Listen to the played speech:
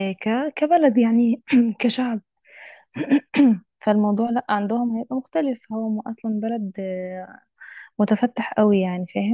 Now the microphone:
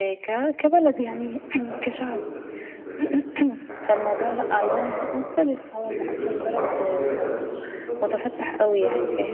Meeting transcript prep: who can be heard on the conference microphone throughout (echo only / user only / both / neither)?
both